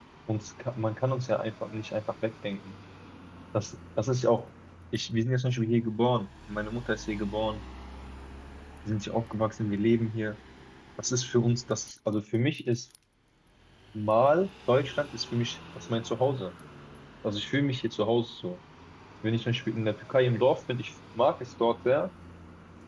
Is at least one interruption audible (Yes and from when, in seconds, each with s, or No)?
No